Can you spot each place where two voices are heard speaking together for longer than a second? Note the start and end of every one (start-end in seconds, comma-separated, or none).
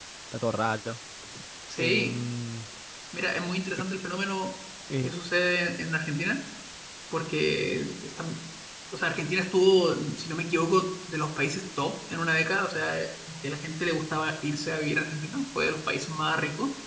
none